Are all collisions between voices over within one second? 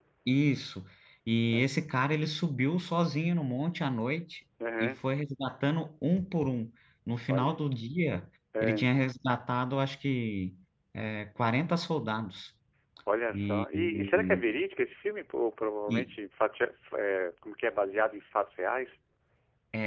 No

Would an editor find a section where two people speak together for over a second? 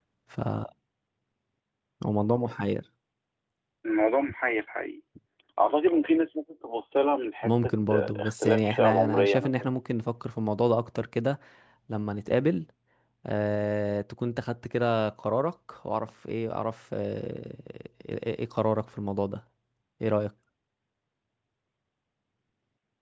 Yes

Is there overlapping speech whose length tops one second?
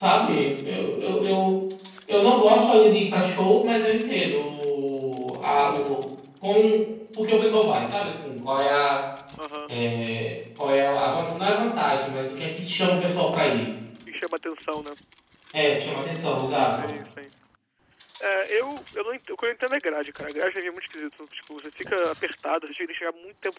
No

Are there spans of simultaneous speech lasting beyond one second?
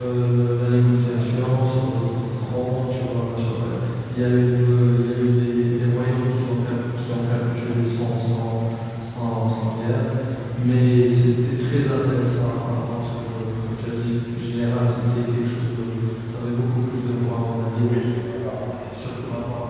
No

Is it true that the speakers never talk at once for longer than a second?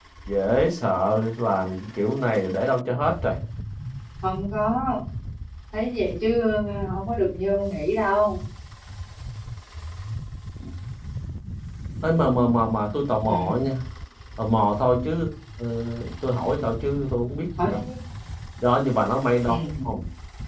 Yes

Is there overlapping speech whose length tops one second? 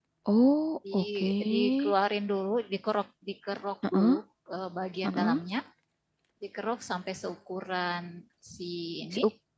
No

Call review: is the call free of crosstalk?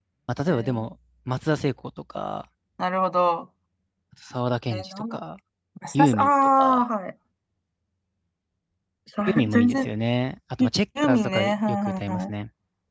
No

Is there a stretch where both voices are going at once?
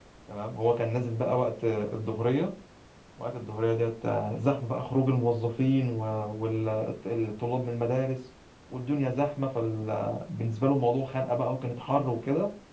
No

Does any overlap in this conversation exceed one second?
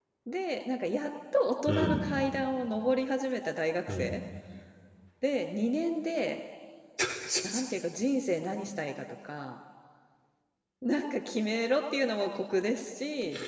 No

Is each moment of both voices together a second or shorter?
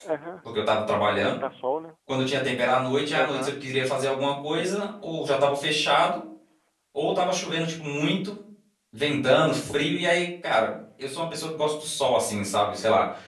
Yes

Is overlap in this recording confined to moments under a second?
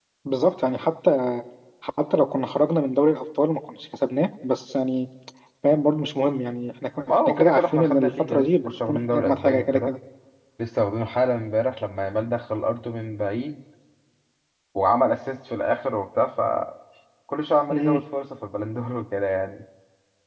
No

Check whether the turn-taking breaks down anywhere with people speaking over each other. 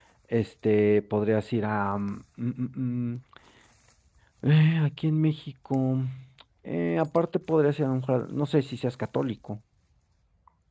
No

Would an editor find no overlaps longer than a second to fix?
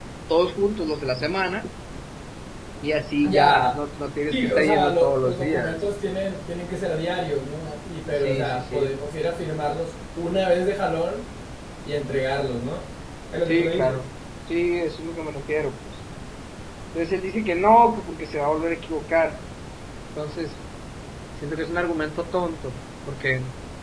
No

